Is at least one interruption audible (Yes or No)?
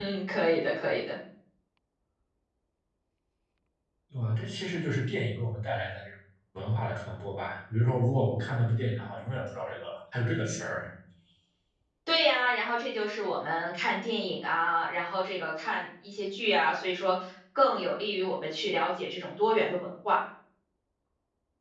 No